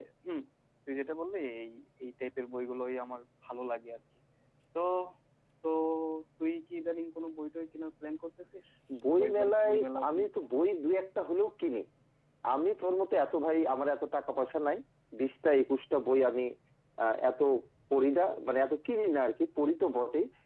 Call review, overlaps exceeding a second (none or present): present